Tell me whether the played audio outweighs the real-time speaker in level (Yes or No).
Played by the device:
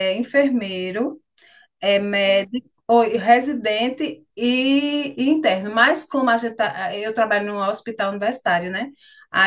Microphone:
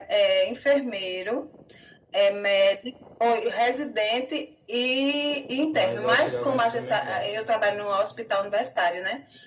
Yes